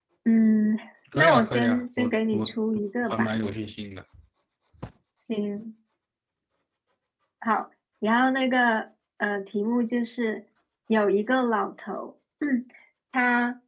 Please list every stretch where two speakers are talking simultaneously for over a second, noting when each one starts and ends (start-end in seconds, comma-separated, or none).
1.1-2.5